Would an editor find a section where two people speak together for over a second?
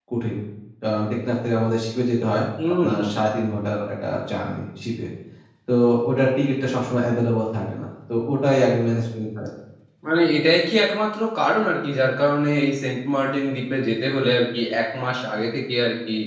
No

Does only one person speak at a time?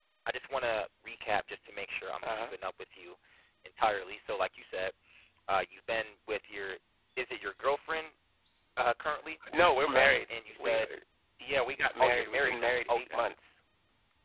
No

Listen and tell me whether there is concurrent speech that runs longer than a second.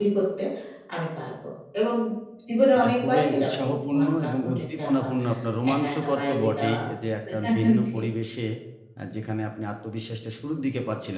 Yes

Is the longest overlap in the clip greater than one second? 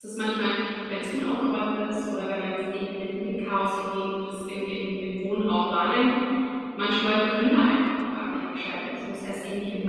No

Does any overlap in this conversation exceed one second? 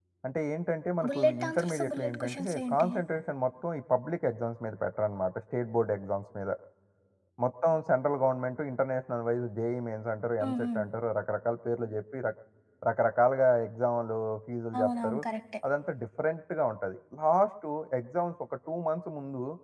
Yes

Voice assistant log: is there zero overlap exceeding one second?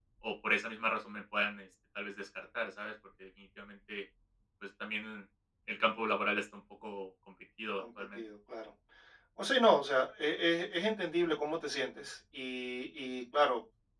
Yes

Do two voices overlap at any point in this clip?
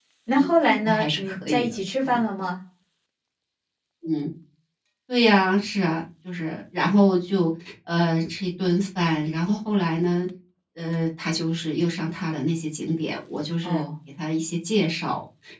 Yes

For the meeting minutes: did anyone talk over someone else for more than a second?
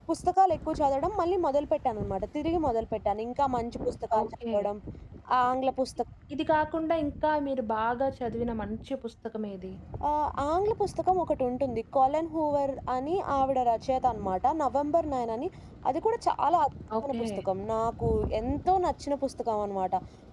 No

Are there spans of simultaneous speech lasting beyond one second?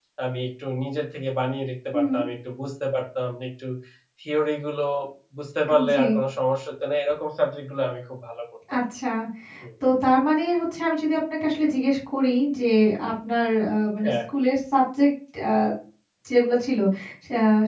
No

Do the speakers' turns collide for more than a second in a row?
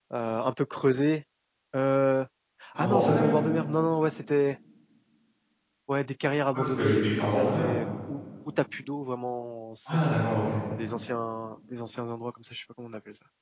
Yes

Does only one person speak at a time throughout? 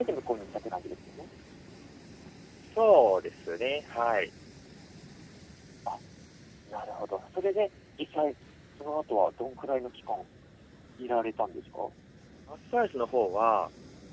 Yes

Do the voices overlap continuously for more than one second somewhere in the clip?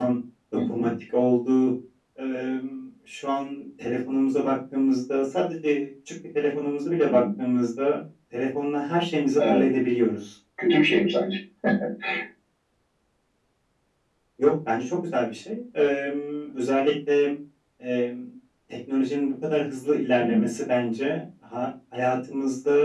No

